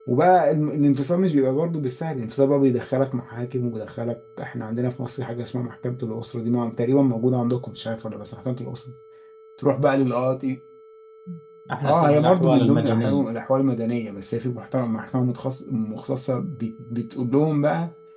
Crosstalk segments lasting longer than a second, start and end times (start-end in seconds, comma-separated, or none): 11.8-13.2